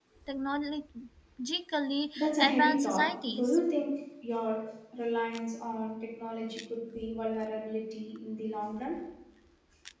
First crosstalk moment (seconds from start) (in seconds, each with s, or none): 2.2 s